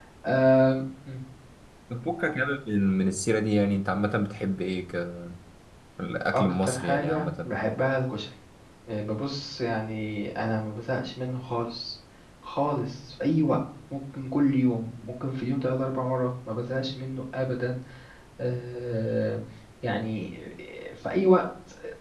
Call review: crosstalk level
present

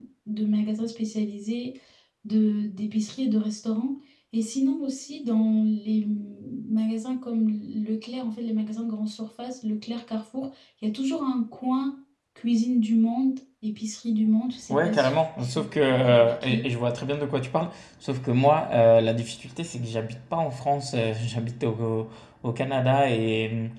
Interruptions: present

